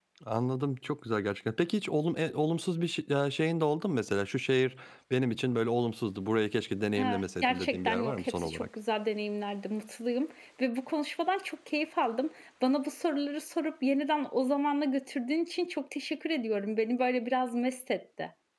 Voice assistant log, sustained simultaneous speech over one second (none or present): present